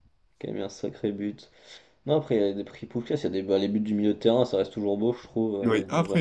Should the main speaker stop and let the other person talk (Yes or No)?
Yes